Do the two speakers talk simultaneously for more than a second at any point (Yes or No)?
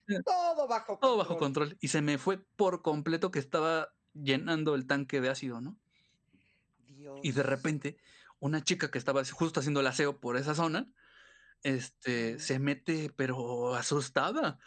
No